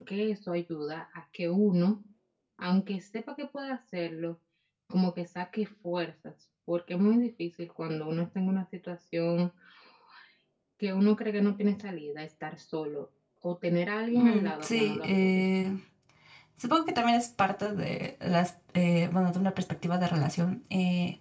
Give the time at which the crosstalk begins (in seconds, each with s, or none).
14.1 s